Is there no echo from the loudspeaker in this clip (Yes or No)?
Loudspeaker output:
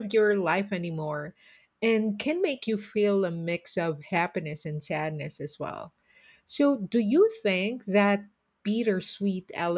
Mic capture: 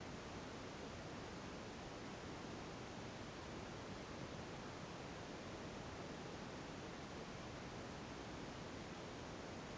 Yes